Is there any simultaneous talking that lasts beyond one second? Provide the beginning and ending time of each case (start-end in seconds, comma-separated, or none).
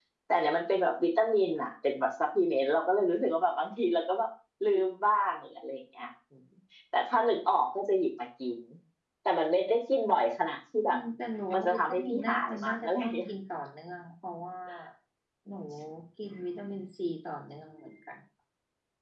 11.5-13.3